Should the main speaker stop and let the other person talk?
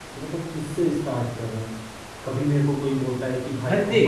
Yes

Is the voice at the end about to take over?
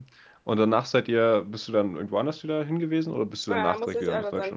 Yes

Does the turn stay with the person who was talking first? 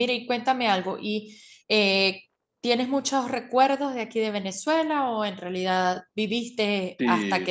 No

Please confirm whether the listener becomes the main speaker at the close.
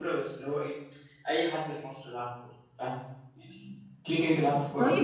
Yes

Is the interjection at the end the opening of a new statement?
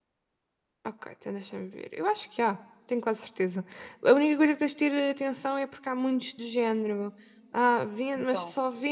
No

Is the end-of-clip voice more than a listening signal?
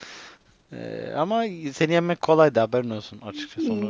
Yes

